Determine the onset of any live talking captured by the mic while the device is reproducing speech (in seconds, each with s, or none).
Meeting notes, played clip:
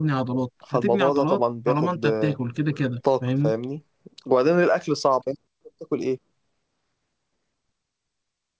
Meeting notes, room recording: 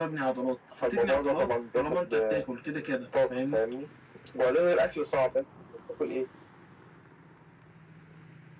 none